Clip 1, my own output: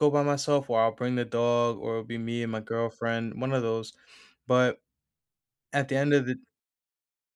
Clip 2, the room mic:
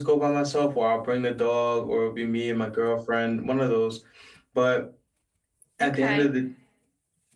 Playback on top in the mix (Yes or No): Yes